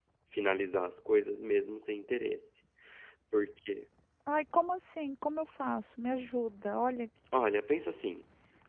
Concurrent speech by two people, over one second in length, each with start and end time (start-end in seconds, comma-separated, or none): none